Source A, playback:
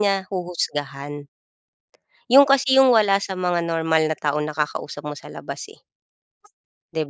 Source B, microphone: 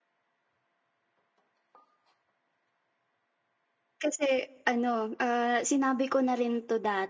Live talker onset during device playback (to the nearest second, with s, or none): 4 s